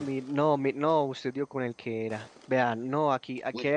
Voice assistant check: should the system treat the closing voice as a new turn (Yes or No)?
No